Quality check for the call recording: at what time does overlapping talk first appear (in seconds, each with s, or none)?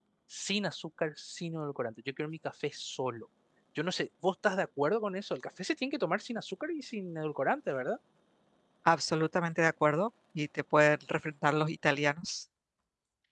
none